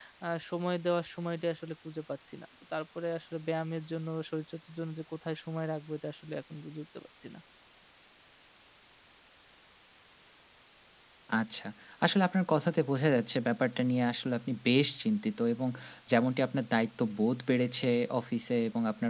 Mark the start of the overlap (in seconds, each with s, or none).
none